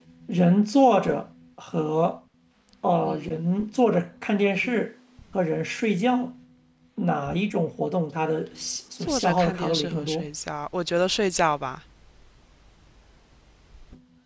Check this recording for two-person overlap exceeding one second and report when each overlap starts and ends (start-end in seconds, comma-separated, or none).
9.0-10.3